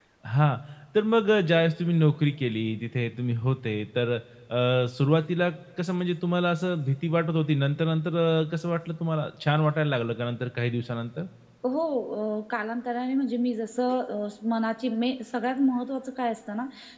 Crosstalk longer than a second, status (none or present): none